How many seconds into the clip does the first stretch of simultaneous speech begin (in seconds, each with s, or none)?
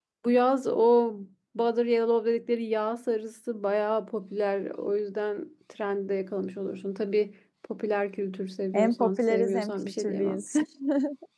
8.7 s